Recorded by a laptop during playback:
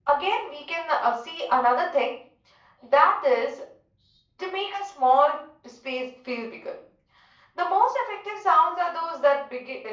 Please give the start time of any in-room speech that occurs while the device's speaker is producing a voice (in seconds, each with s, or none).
none